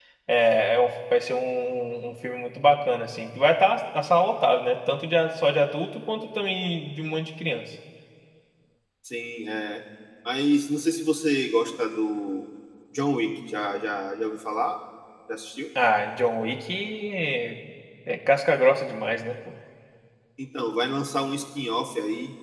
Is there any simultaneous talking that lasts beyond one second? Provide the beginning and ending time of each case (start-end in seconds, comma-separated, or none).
none